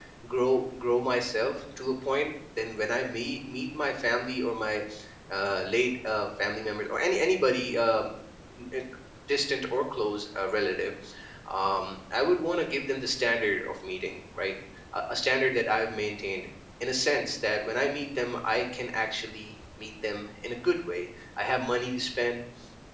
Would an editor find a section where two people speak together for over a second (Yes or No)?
No